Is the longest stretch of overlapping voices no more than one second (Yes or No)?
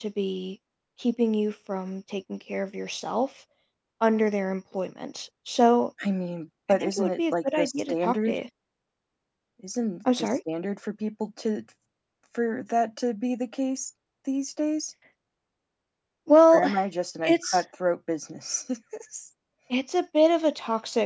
No